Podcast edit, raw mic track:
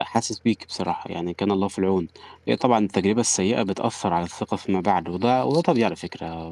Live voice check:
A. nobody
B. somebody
B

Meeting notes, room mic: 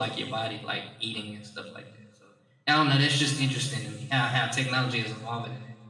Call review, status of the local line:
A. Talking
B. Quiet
B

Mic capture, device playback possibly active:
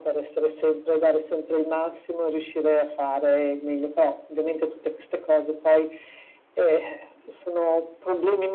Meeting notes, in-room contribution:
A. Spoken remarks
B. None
B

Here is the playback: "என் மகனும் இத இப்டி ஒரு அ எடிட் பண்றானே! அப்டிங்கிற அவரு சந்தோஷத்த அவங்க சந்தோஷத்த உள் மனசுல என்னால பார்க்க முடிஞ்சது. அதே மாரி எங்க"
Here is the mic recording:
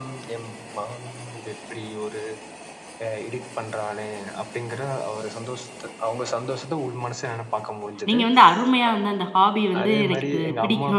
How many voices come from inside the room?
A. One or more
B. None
A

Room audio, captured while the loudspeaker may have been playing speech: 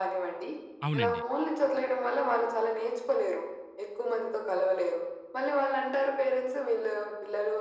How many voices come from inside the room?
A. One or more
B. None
A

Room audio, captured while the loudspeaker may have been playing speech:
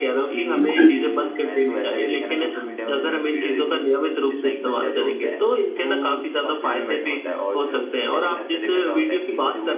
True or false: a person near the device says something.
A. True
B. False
A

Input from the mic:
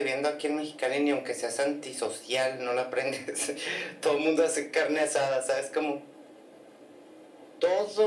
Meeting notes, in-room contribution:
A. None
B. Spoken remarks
A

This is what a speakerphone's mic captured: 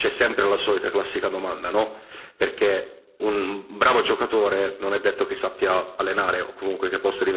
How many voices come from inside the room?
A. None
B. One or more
A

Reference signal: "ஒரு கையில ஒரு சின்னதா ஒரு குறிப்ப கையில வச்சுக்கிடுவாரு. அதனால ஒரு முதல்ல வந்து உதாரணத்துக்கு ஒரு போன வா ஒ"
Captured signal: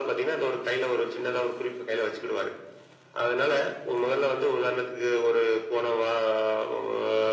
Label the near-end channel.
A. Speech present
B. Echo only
B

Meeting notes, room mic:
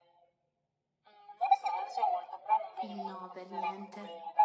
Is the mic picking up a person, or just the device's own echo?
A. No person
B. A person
B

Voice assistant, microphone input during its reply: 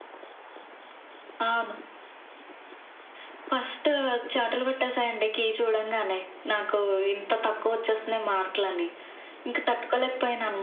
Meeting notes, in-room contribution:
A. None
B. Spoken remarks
A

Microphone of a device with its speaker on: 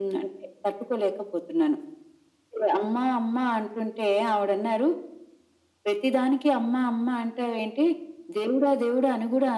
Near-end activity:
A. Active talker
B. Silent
B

